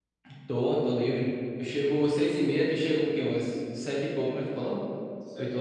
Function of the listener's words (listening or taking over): taking over